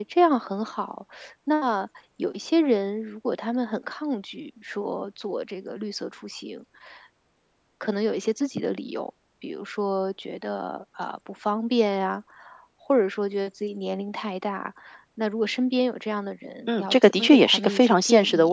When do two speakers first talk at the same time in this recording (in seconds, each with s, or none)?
16.7 s